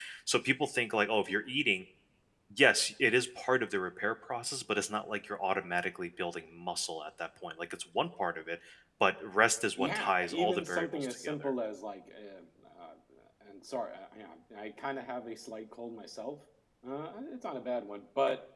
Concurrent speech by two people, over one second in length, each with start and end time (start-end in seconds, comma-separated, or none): 9.8-11.5